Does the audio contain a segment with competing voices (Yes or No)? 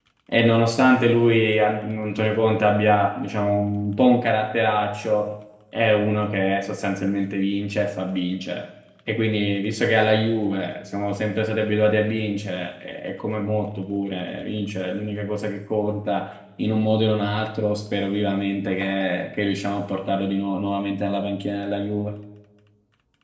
No